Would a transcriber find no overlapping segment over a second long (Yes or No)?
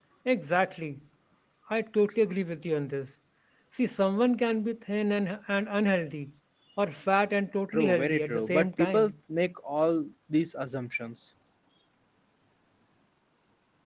No